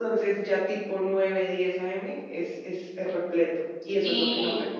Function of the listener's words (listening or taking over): taking over